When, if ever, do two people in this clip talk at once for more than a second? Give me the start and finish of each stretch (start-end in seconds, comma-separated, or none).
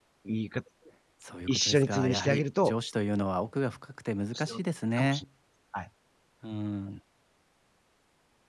1.5-2.7